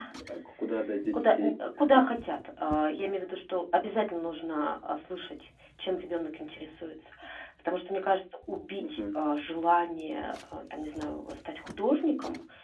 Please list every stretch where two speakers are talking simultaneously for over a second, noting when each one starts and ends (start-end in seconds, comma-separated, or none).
none